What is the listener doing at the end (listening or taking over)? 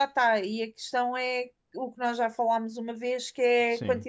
listening